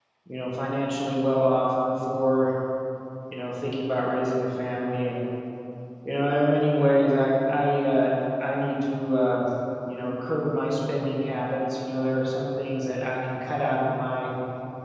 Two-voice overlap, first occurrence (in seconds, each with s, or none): none